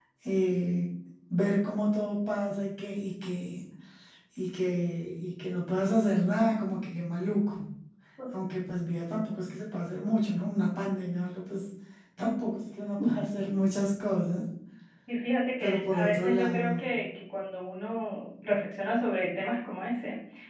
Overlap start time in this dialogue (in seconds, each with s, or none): 15.6 s